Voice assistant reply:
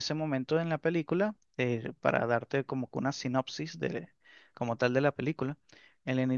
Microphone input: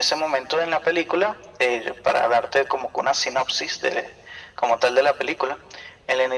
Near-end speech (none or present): none